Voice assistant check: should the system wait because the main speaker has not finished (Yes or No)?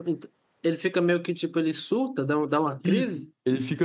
No